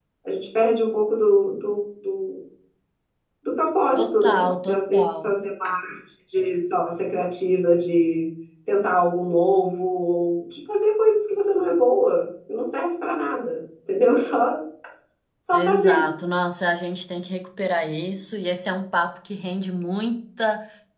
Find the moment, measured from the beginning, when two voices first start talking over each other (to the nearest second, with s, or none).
4 s